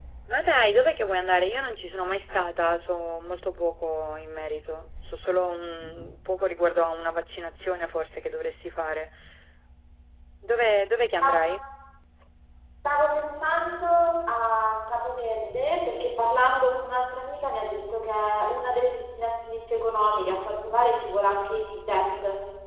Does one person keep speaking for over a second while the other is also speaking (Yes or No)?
No